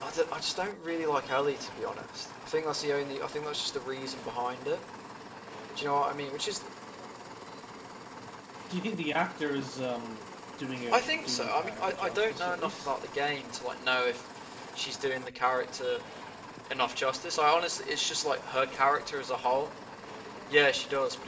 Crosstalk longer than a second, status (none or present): present